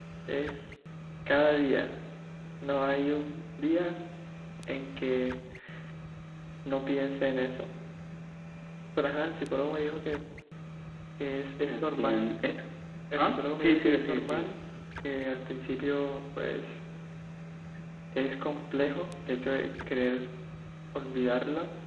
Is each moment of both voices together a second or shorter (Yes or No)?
No